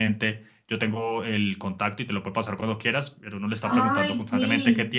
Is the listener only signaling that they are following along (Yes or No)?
Yes